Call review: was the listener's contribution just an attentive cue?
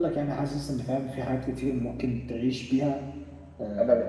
No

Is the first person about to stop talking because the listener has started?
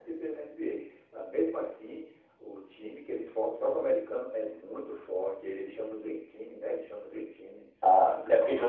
Yes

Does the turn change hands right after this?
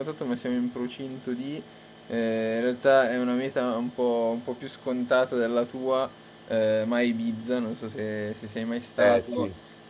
No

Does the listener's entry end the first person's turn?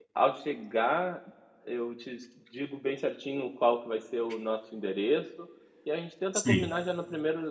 No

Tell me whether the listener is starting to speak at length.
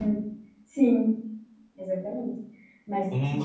Yes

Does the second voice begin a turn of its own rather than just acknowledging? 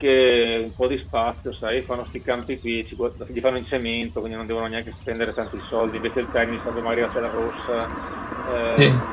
No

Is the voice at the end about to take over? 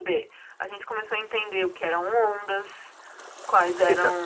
No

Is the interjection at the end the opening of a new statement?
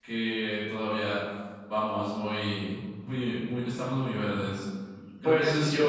Yes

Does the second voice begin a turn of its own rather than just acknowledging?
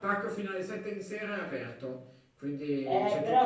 Yes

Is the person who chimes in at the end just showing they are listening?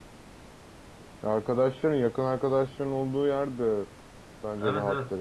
No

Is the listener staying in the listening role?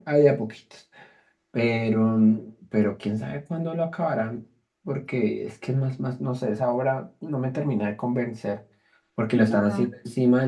Yes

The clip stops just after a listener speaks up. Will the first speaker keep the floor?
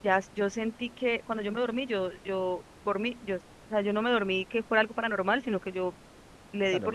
No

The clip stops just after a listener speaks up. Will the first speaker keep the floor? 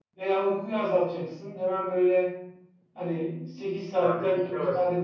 Yes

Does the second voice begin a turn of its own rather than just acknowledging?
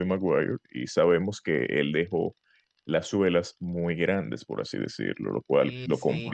Yes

